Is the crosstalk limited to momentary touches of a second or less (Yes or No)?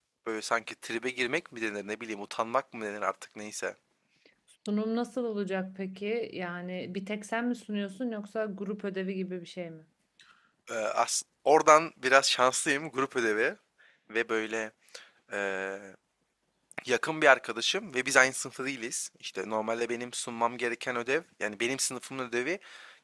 Yes